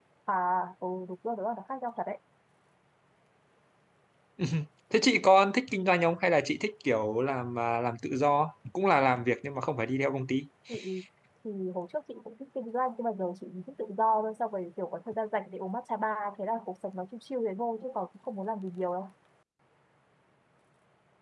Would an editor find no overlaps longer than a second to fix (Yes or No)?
Yes